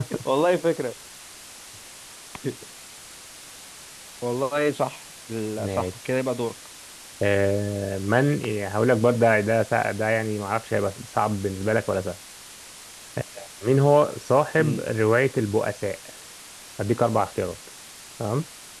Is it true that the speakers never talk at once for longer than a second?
Yes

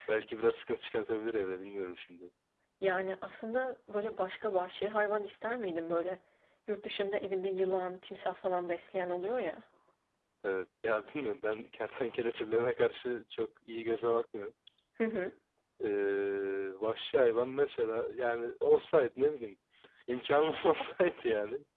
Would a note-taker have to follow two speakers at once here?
No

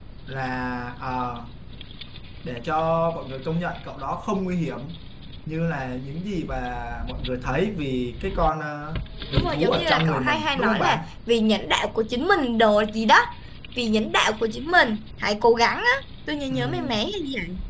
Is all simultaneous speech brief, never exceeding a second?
No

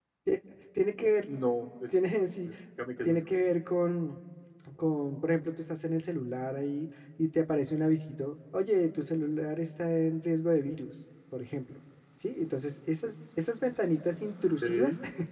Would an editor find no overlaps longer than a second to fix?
Yes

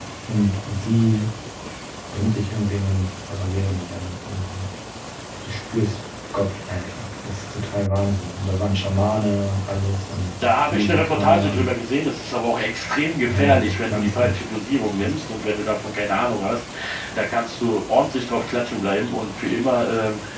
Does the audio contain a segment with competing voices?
Yes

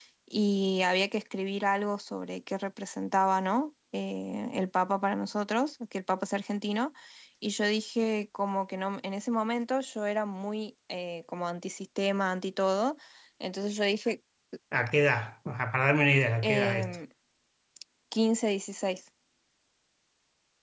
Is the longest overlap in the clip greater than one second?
No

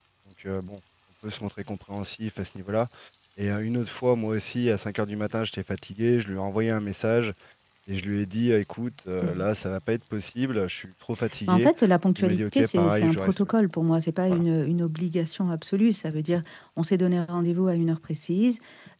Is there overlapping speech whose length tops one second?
Yes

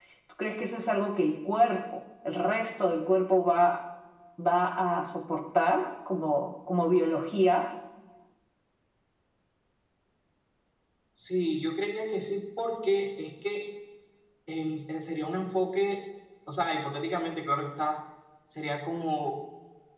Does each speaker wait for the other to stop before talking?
Yes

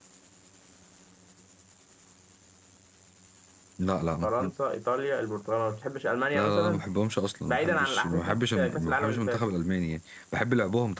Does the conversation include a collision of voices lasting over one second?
Yes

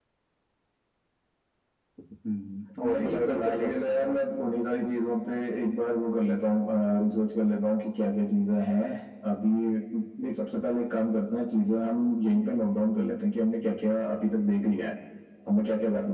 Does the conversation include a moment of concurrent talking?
Yes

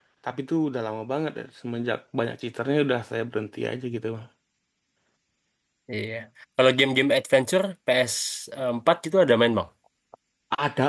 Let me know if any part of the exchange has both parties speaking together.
No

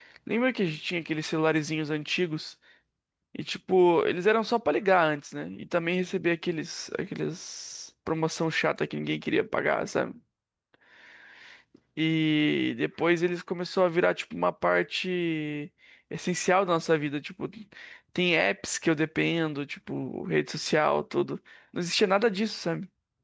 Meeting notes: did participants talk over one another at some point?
No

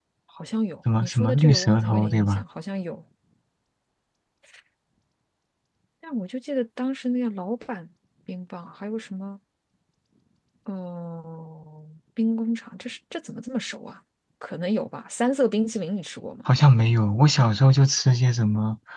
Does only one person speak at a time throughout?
No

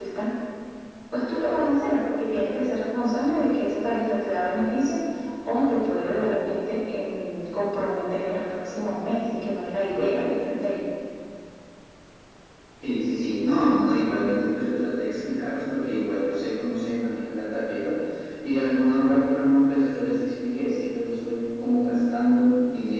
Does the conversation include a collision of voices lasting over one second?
No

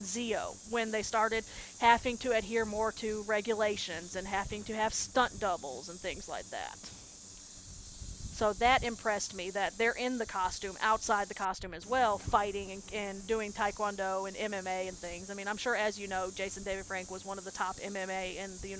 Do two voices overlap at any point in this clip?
No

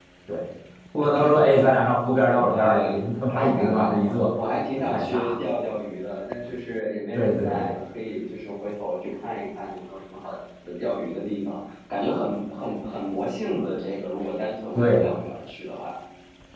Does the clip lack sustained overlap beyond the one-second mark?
No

